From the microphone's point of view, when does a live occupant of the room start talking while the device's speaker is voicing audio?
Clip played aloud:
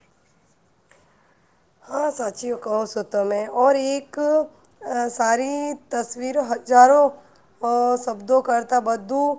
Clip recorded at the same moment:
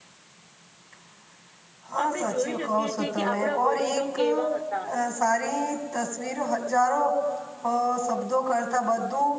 2.0 s

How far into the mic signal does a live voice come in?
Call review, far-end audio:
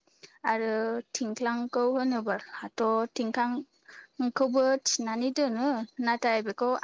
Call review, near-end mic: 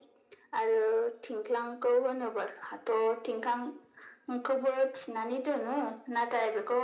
none

